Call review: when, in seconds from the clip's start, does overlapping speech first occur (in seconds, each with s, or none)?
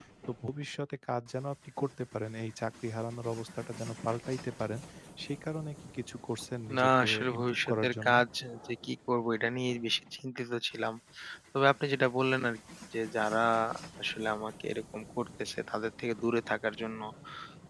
6.7 s